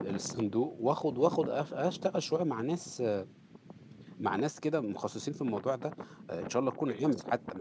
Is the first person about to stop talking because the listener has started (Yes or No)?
No